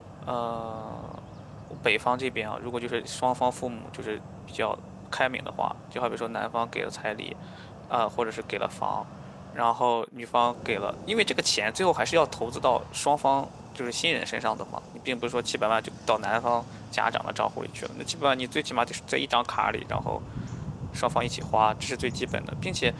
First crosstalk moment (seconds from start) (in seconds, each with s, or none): none